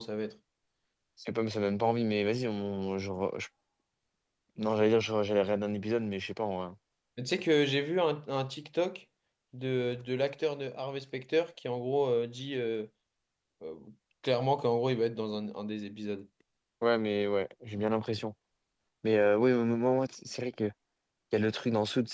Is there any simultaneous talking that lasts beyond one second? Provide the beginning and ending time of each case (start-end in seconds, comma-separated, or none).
none